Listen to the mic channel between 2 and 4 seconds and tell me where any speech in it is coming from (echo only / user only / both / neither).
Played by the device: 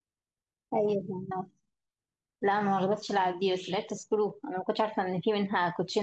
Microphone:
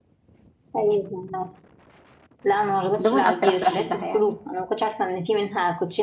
both